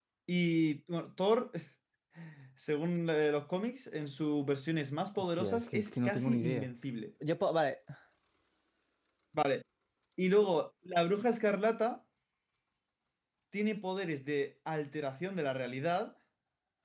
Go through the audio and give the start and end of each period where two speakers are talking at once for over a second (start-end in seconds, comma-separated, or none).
5.2-6.7